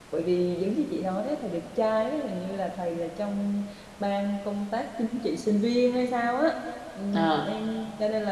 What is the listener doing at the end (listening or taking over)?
listening